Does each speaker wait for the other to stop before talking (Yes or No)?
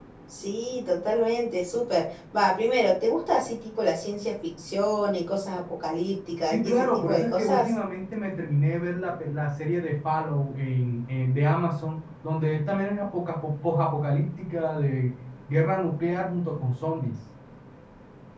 No